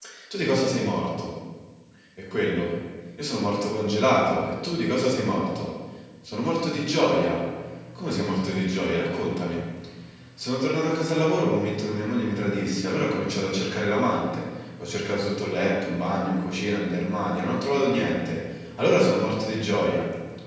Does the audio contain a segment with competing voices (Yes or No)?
No